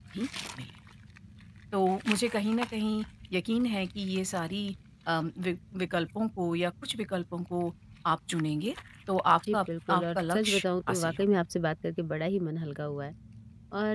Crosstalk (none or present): present